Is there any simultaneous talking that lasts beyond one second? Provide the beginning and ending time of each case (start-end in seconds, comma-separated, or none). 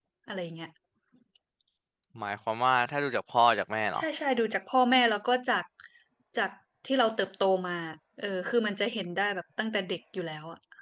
none